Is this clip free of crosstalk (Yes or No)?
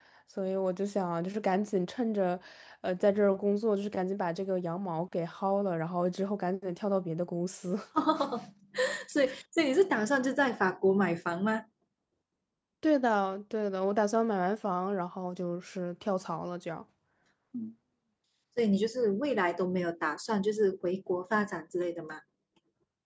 Yes